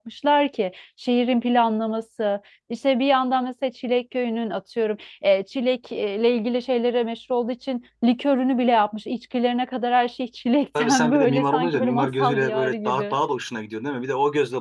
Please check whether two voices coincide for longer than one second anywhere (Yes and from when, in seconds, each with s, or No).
Yes, from 10.8 s